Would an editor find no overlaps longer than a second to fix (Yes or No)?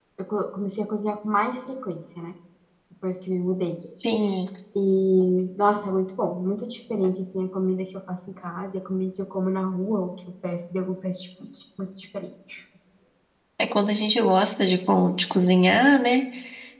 Yes